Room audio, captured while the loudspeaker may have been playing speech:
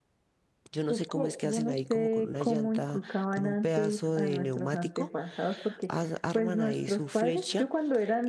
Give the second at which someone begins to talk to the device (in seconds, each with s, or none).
0.7 s